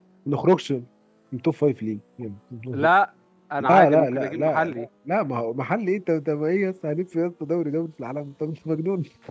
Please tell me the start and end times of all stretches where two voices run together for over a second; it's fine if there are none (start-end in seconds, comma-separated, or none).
3.6-4.9